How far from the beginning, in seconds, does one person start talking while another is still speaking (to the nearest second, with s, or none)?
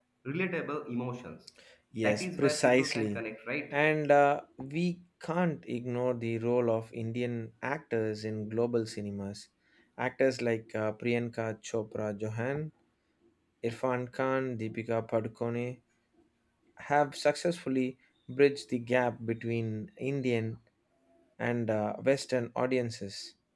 2 s